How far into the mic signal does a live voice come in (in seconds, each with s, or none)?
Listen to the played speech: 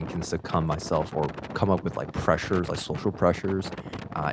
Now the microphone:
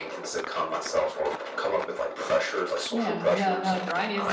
2.9 s